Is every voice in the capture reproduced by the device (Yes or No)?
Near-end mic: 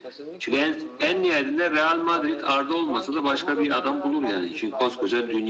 No